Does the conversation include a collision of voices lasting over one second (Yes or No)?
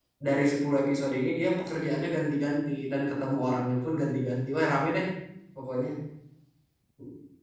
No